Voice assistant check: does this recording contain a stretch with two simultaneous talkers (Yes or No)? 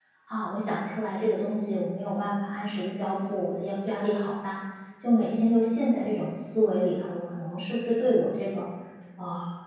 No